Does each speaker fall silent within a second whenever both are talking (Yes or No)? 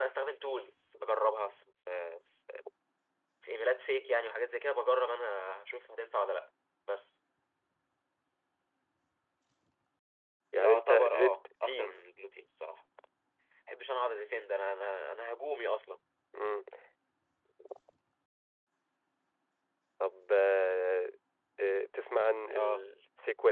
No